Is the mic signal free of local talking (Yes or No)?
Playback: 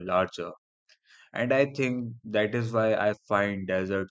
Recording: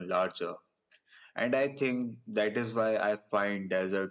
Yes